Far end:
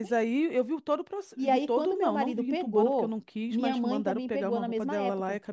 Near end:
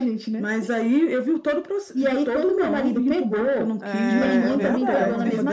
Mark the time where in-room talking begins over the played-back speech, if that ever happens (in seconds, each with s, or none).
3.8 s